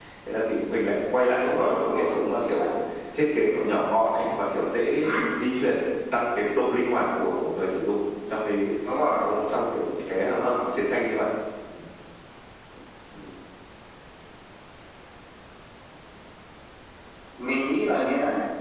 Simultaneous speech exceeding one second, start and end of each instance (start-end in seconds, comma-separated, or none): 1.4-2.7